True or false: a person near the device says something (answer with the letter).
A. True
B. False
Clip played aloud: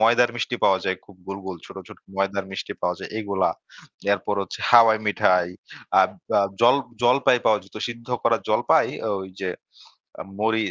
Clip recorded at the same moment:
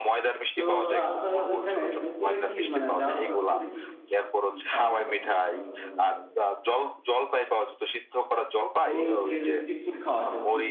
A